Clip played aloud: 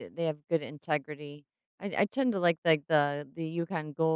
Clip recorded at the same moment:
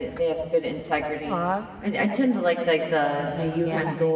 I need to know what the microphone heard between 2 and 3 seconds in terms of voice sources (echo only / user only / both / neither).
both